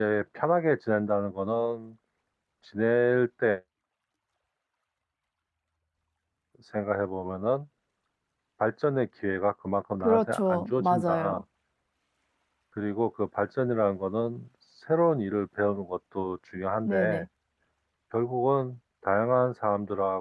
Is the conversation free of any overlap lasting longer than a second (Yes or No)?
No